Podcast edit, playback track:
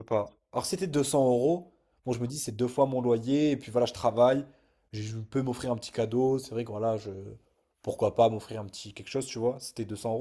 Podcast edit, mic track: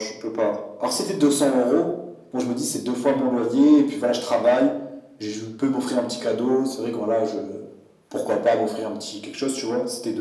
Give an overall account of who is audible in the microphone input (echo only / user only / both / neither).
echo only